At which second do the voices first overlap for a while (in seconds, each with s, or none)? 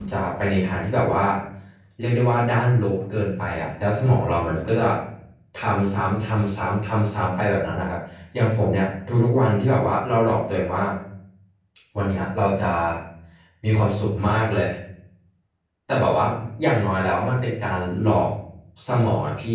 none